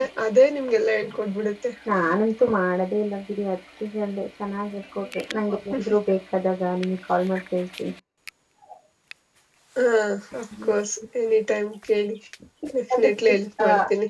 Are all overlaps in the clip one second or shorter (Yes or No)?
Yes